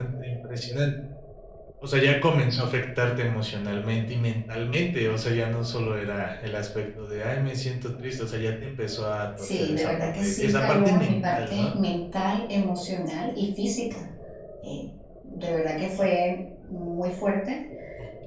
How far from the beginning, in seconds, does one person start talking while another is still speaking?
9.4 s

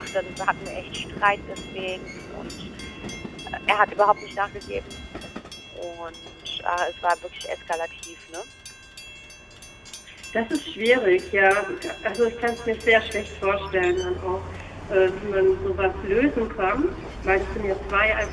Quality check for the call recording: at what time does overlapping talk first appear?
none

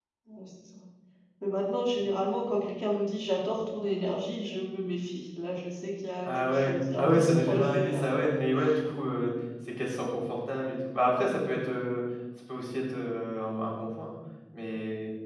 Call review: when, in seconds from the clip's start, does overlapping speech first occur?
6.2 s

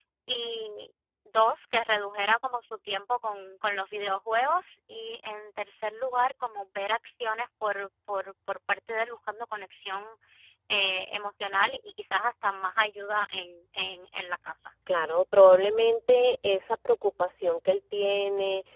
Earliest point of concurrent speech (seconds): none

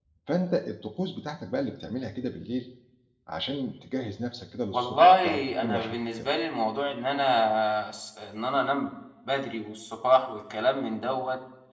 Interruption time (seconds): 4.7 s

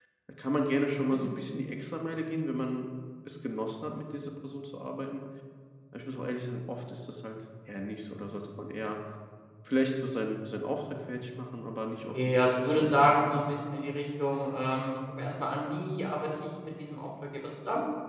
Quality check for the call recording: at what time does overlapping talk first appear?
12.1 s

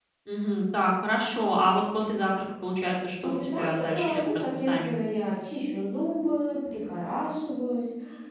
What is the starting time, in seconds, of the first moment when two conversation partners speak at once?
3.2 s

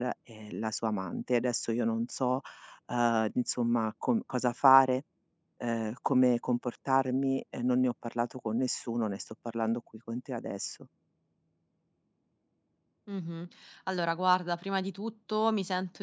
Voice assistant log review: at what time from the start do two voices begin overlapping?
none

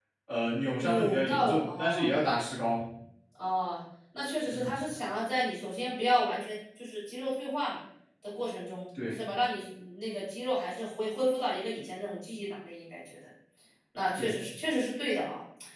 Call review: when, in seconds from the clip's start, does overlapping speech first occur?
0.8 s

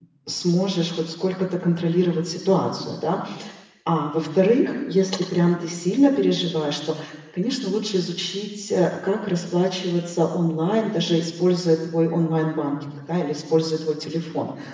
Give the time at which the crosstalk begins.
none

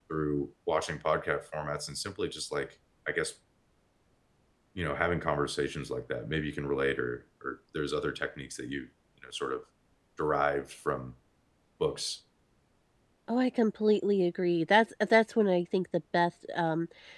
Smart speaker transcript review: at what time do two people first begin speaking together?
none

